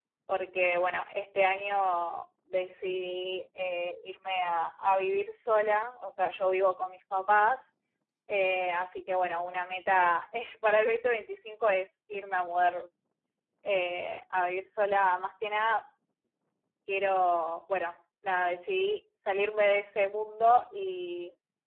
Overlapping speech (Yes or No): No